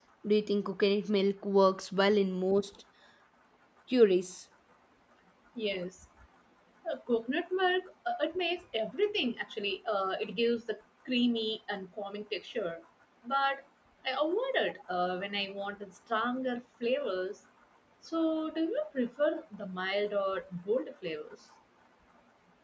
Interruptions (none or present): none